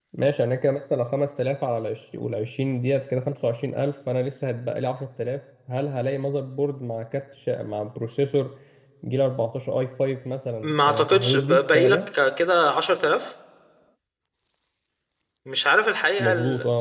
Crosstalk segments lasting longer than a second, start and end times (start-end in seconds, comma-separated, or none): 10.8-12.1